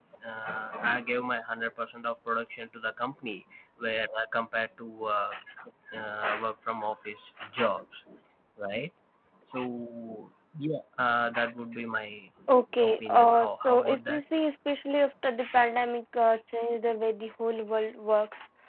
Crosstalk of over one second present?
Yes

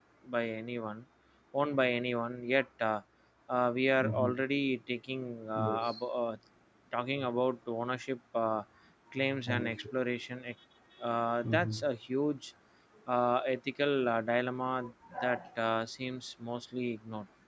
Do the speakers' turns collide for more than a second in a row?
No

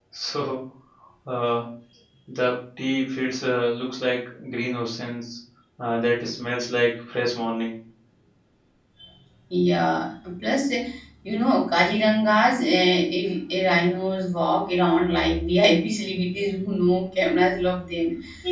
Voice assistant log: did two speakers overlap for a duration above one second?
No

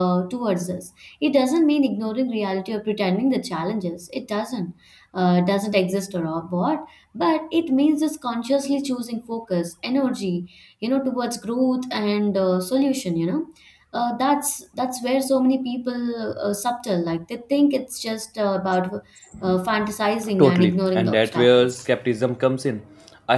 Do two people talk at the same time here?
Yes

